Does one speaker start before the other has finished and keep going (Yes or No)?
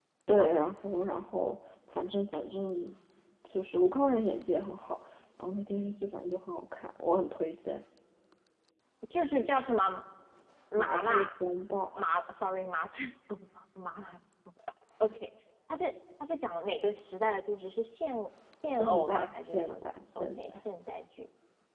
Yes